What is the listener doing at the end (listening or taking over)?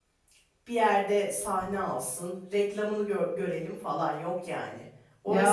listening